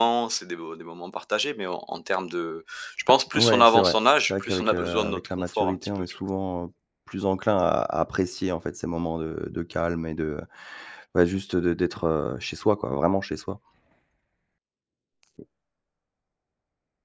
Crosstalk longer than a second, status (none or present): present